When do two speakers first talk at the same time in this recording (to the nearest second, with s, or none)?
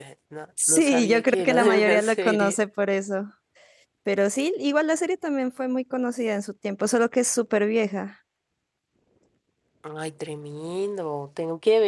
1 s